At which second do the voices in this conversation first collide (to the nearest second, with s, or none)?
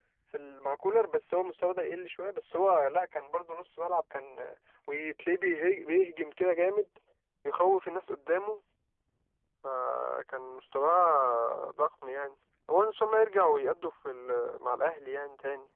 none